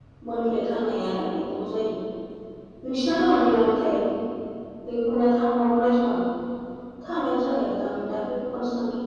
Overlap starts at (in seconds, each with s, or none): none